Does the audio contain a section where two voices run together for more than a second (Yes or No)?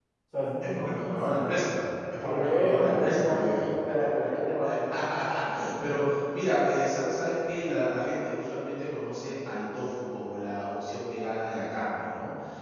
Yes